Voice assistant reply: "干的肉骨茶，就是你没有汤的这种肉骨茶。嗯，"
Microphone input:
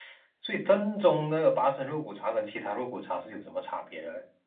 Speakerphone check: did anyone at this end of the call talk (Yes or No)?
Yes